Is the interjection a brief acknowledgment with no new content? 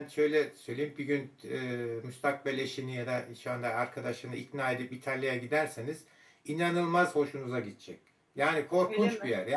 Yes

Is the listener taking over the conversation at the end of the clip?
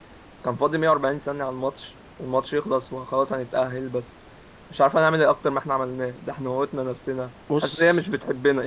No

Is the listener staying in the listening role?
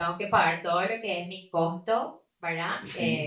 Yes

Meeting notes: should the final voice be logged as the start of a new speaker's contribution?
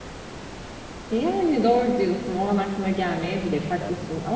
No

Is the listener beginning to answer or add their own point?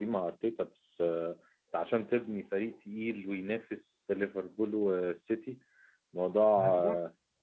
No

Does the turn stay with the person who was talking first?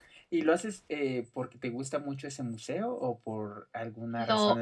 No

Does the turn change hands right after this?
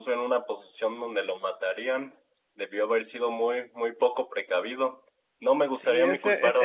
Yes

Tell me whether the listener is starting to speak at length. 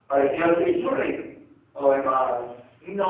Yes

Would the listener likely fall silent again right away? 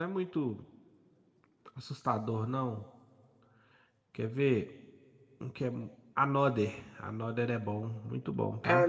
No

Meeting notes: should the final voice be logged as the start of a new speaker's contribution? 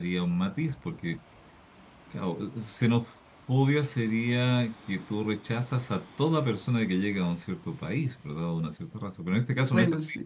No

